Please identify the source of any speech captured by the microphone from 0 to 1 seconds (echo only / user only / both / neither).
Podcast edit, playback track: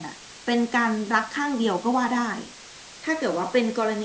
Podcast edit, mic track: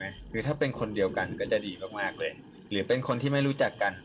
user only